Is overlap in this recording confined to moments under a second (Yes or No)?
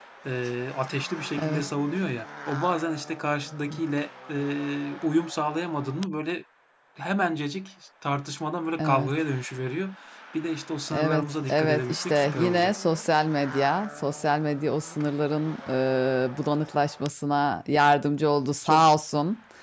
No